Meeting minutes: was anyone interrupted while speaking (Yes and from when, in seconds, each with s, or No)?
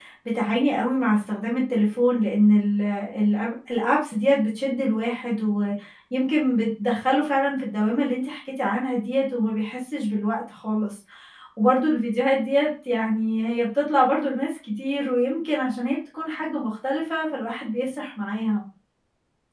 No